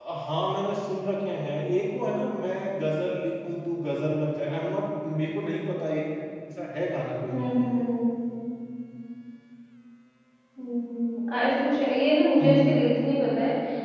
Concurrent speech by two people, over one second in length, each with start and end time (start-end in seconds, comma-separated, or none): none